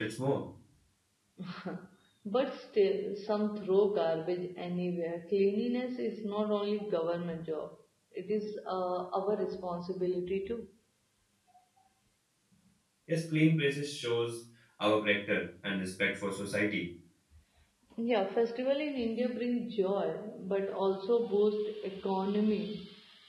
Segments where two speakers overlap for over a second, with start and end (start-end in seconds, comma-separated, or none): none